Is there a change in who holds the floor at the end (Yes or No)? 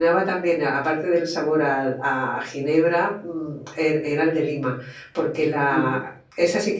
No